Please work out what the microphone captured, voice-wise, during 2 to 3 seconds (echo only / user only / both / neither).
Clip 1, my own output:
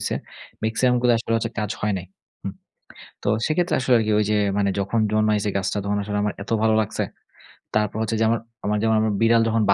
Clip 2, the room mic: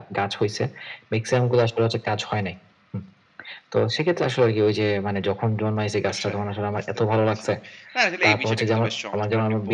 echo only